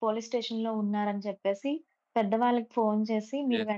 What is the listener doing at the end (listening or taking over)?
listening